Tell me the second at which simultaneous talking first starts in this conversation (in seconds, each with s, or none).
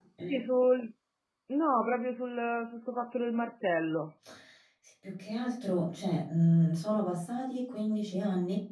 none